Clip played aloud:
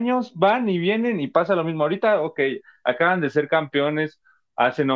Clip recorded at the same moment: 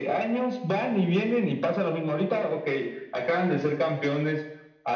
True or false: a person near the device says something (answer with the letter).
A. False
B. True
A